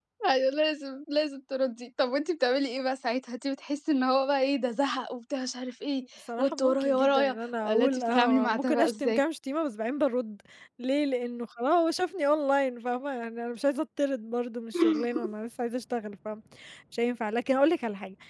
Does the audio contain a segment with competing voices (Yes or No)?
Yes